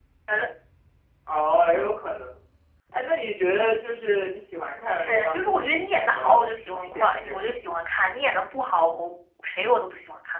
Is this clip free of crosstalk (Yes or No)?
No